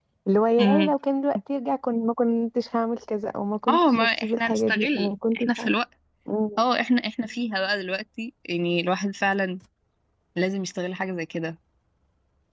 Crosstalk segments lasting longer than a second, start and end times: 3.7-5.7

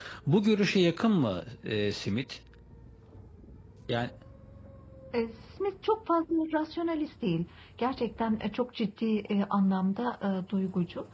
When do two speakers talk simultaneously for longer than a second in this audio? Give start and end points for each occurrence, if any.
none

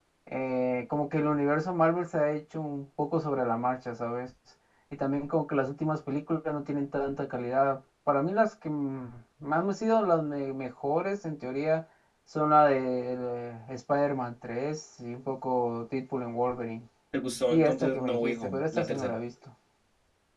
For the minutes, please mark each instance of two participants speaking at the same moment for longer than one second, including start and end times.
17.5-19.2

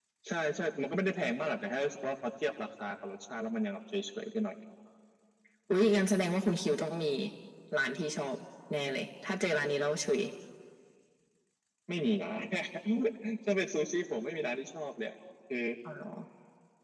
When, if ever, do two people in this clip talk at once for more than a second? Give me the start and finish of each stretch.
none

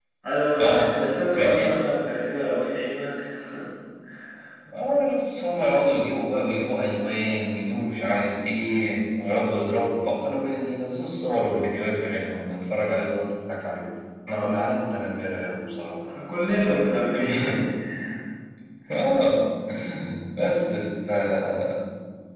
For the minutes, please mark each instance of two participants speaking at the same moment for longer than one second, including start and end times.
none

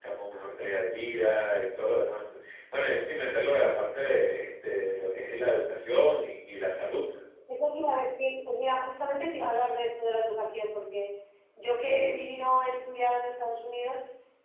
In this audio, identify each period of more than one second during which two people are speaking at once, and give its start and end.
none

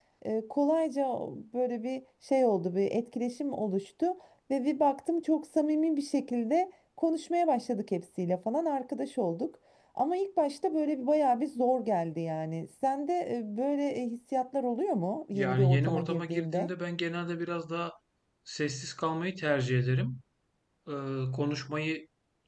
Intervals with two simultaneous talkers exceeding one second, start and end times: 15.3-16.7

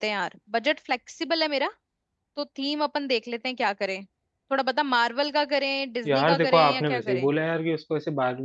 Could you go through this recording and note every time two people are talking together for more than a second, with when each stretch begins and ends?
6.0-7.3

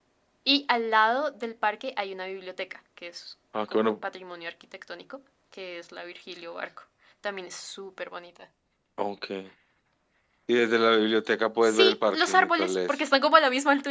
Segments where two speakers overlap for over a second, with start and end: 11.6-12.9

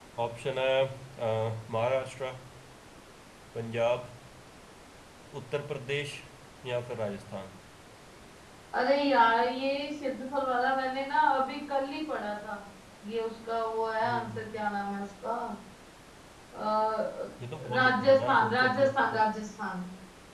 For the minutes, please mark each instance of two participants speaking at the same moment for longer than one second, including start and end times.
17.7-19.2

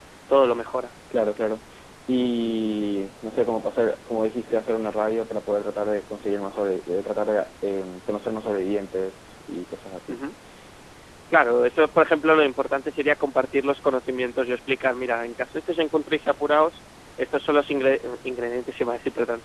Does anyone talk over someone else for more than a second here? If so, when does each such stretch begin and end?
none

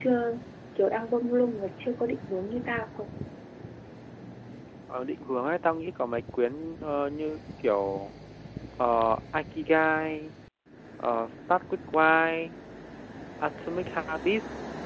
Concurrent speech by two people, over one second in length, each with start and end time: none

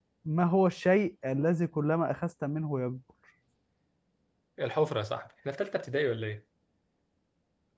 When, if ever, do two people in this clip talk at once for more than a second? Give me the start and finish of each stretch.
none

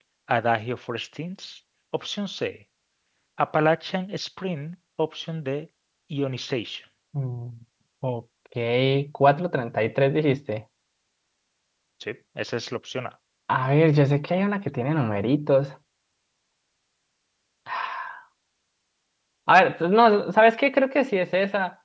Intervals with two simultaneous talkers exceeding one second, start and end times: none

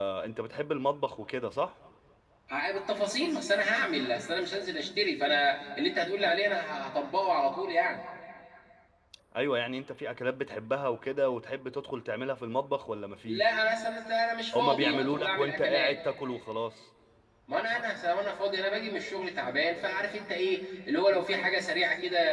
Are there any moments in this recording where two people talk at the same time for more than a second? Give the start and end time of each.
14.6-16.0

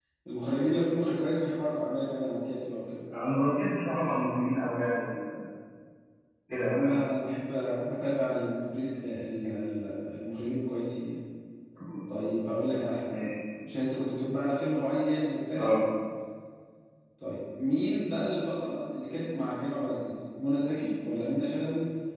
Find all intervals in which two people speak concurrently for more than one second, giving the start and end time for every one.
none

